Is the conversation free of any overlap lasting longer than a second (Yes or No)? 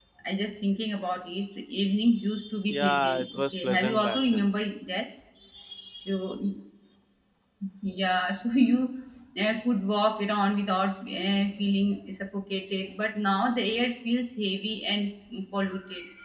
No